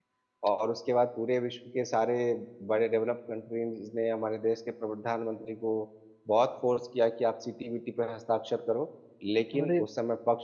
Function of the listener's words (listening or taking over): listening